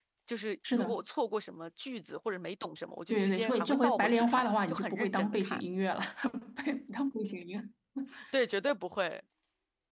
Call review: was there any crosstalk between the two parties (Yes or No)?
Yes